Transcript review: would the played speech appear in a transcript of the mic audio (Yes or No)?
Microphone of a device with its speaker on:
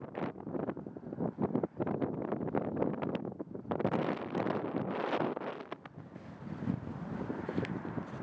No